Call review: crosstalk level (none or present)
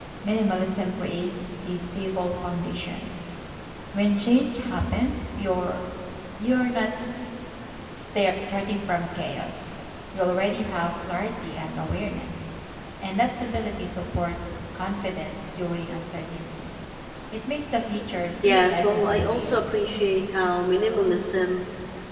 present